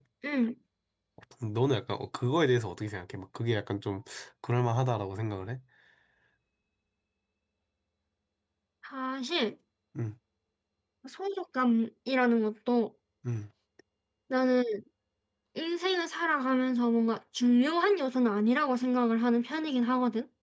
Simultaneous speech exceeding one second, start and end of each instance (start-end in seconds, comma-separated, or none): none